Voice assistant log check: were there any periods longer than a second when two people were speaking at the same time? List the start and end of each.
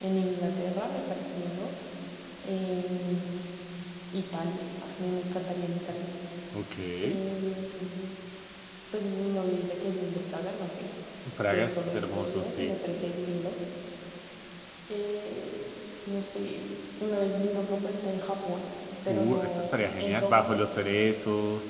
11.5-12.7, 19.1-20.6

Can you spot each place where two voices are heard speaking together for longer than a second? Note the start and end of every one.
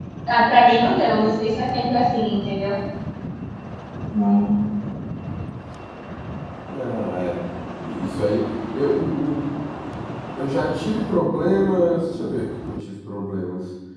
none

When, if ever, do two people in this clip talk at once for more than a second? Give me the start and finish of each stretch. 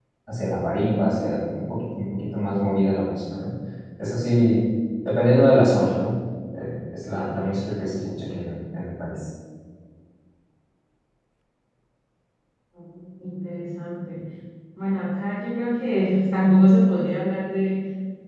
none

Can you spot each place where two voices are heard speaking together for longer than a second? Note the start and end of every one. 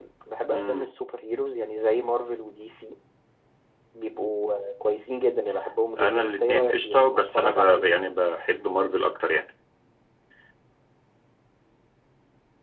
6.0-8.2

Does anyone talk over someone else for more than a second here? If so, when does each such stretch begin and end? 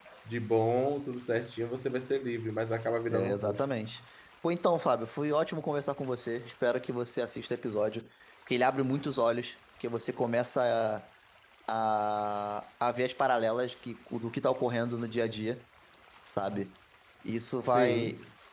none

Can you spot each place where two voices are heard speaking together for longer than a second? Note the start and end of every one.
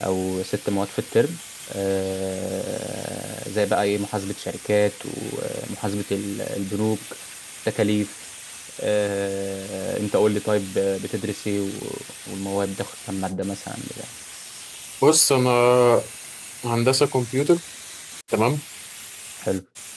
none

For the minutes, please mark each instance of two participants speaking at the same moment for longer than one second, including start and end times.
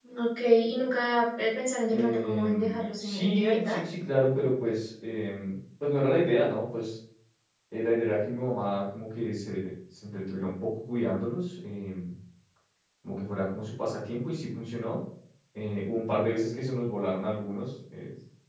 1.9-3.8

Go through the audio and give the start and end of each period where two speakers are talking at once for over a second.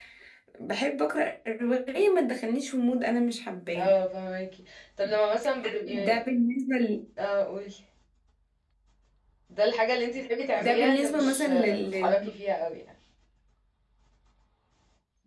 10.6-12.3

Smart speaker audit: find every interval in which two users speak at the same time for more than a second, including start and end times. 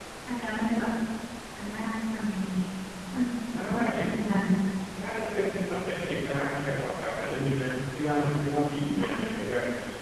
none

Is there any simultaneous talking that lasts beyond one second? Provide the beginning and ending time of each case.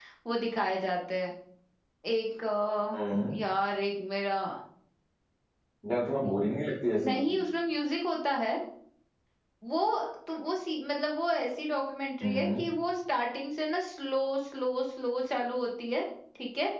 none

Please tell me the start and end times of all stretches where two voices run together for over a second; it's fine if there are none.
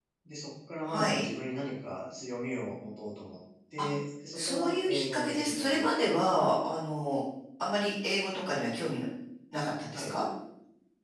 4.3-6.4

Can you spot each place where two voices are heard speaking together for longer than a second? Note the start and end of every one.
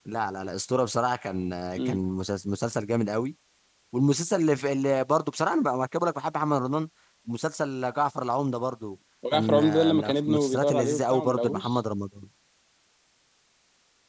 9.3-11.8

